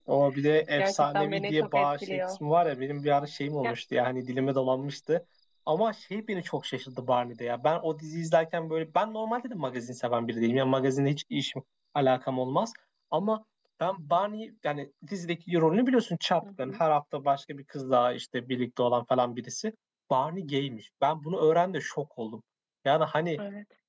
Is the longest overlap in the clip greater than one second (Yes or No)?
Yes